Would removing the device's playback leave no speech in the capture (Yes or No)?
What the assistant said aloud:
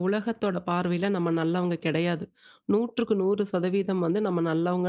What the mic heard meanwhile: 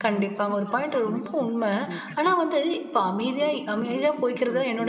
No